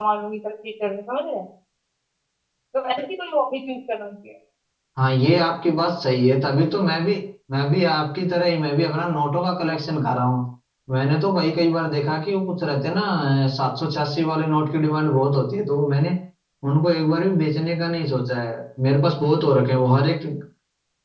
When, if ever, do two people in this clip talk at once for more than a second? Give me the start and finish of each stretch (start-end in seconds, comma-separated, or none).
none